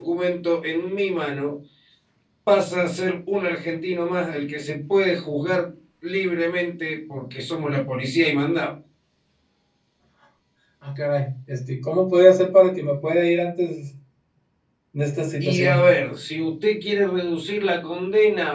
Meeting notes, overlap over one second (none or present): none